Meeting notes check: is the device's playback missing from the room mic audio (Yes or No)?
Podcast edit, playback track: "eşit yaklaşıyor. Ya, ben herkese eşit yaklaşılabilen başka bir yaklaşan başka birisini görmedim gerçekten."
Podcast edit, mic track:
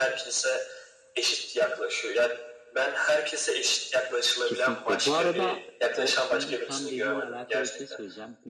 No